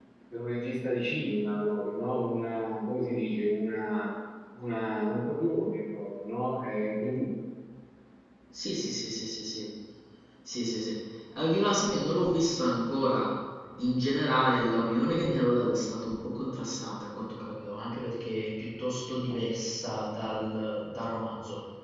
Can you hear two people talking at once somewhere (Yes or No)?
No